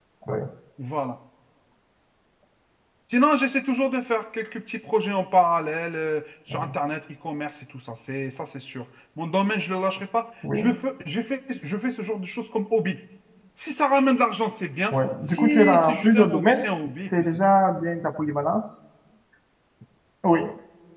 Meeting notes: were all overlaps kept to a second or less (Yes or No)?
No